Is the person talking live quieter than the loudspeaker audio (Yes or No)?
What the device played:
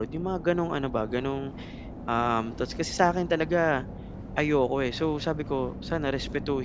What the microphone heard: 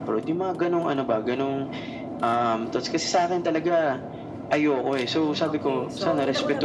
Yes